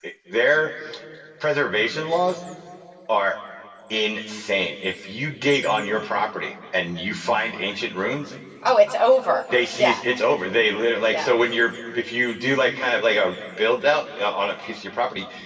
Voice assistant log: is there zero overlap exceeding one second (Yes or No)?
Yes